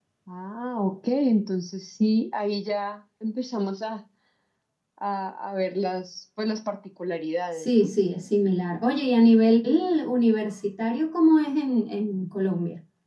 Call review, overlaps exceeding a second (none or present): none